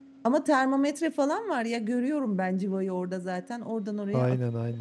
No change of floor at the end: No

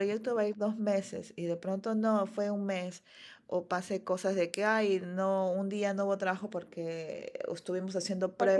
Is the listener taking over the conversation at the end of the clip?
Yes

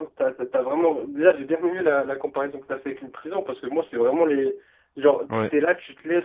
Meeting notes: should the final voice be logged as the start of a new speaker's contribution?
No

